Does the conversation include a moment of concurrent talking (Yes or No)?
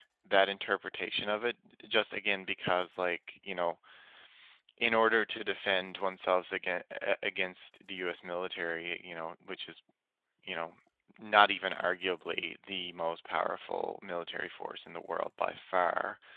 No